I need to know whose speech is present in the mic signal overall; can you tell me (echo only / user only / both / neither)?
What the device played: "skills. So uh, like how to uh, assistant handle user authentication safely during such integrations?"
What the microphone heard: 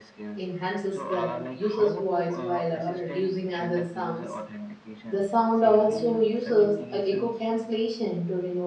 both